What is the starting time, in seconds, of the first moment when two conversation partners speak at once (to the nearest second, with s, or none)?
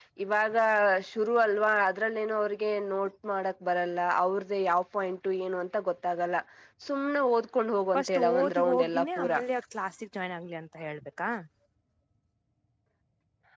8 s